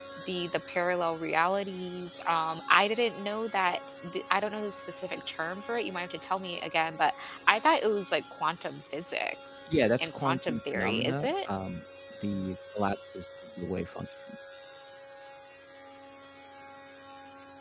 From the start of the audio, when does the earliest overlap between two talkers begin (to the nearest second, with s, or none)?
10 s